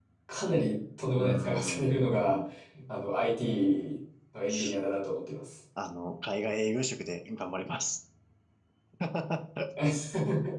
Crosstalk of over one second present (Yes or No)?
Yes